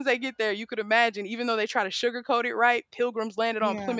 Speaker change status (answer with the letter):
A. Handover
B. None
B